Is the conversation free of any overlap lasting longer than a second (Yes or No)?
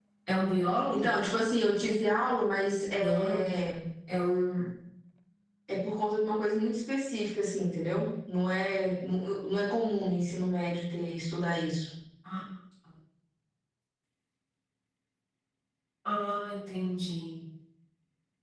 Yes